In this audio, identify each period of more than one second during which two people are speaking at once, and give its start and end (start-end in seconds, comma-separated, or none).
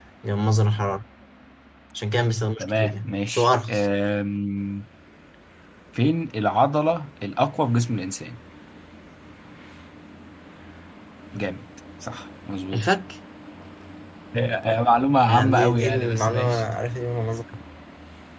2.6-3.8, 15.3-16.6